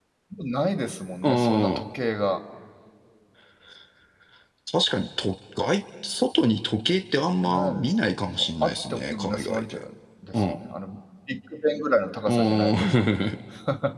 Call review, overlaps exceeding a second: present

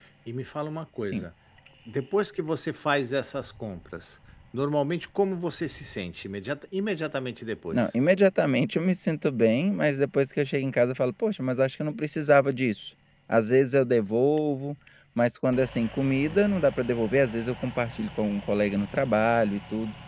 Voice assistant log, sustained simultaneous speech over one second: none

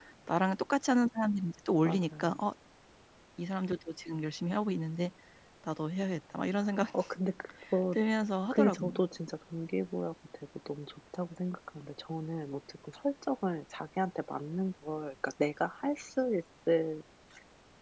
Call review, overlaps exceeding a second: none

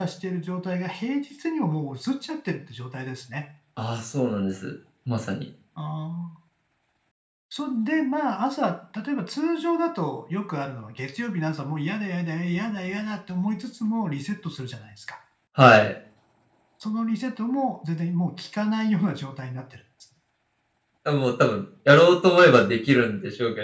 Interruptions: none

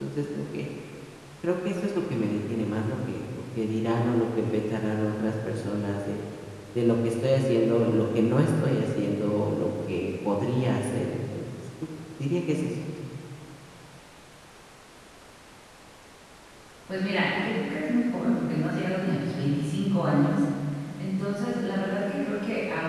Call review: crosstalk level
none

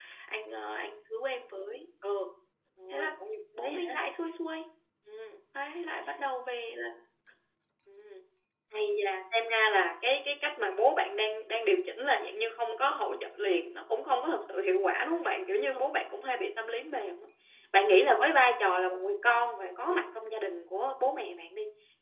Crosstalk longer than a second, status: none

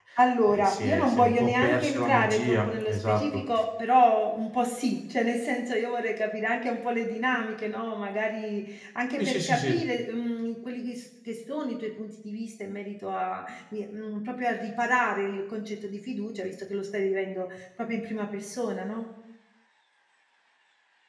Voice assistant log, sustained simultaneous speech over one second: present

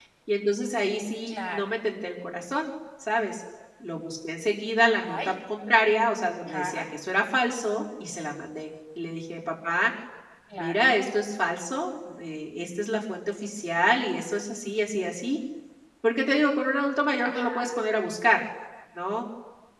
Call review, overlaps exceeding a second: none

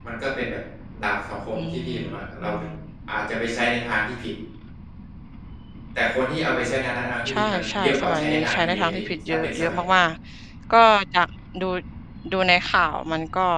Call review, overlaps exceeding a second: present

